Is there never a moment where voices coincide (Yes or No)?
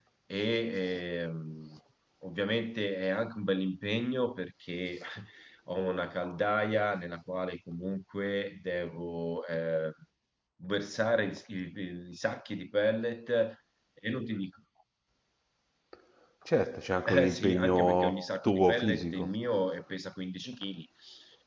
No